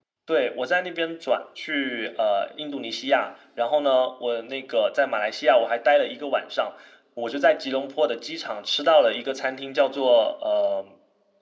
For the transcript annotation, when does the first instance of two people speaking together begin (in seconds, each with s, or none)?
none